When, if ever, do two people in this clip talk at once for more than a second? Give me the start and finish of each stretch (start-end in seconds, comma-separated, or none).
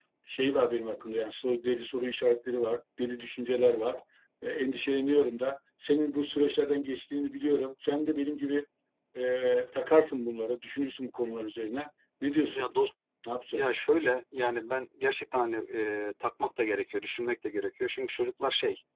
none